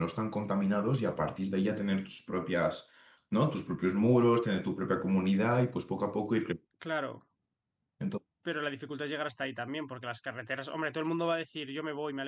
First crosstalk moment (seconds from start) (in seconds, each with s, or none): none